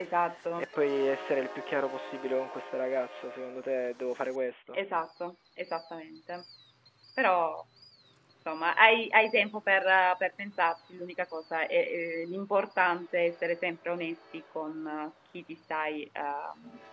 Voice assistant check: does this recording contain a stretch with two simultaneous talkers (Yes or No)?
No